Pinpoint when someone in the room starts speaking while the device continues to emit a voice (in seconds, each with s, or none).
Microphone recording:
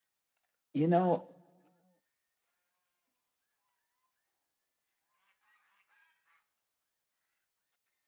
0.7 s